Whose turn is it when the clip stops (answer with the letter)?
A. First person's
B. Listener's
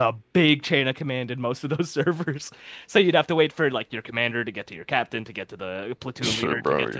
B